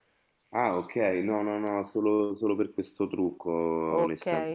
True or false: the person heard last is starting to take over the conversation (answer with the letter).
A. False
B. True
B